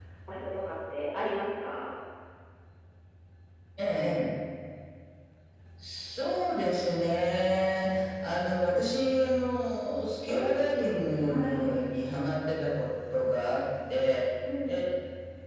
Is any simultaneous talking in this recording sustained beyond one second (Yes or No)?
No